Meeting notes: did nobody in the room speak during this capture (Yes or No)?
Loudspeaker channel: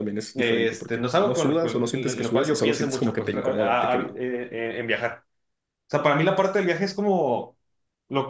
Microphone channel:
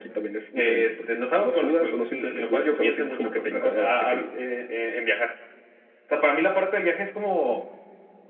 Yes